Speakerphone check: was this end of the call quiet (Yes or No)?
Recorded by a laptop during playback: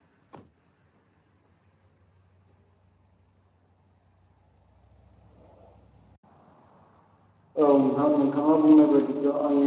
No